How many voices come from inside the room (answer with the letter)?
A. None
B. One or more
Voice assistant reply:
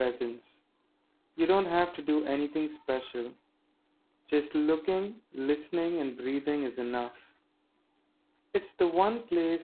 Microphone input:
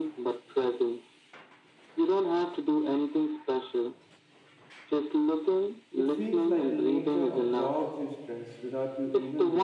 B